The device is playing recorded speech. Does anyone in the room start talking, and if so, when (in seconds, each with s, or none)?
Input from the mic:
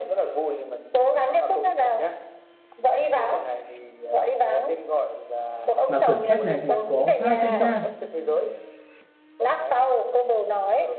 5.9 s